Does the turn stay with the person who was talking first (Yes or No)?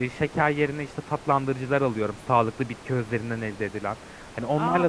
Yes